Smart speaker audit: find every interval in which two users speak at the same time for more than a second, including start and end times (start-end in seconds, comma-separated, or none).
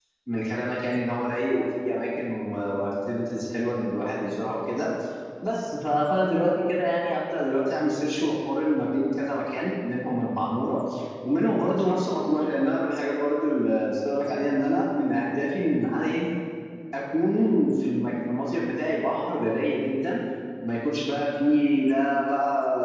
none